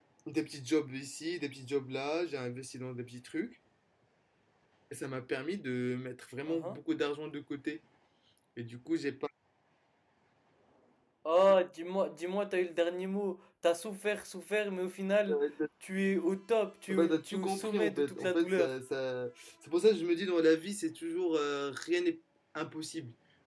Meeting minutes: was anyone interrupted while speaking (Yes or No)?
Yes